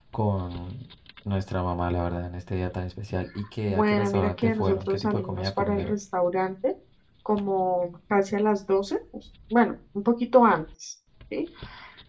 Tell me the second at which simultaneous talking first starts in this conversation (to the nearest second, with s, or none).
4 s